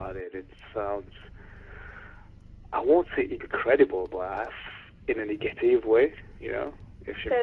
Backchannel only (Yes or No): No